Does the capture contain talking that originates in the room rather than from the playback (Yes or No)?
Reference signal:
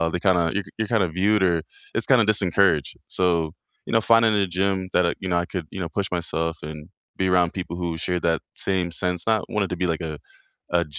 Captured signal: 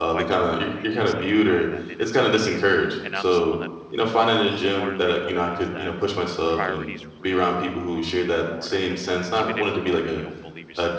Yes